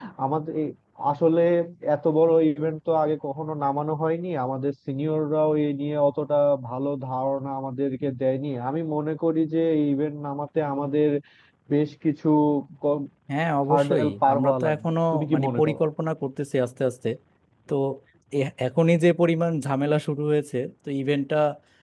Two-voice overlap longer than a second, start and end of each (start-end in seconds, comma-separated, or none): 13.7-15.8